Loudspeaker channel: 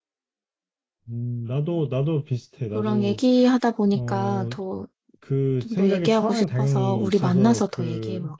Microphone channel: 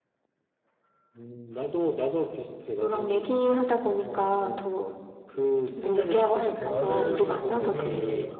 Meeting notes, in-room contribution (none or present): present